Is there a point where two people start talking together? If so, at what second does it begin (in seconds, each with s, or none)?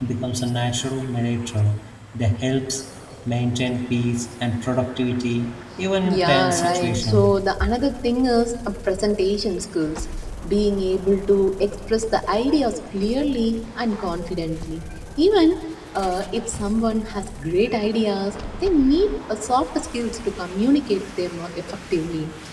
6.0 s